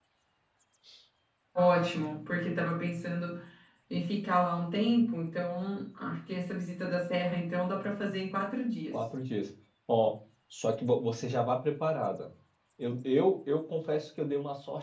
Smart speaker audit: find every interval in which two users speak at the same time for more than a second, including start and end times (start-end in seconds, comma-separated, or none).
none